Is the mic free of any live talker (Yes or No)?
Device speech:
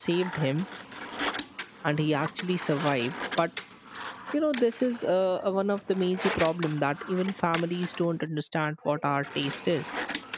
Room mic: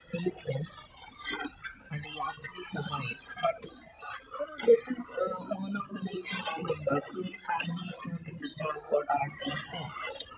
Yes